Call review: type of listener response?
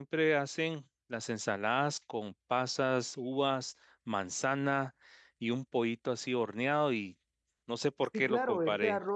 taking over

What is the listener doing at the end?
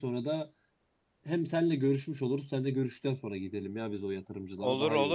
taking over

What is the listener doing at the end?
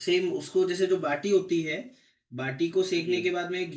listening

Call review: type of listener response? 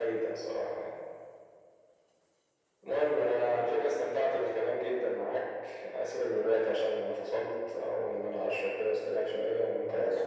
taking over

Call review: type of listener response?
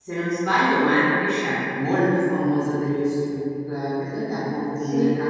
listening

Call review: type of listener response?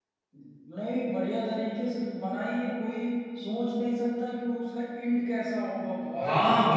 taking over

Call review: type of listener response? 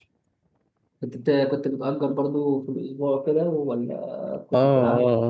taking over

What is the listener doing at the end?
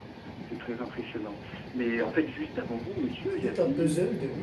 taking over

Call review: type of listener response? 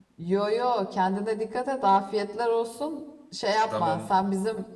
listening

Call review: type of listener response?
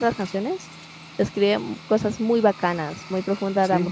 taking over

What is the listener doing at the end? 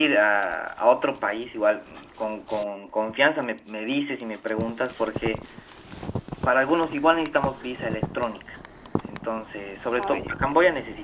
listening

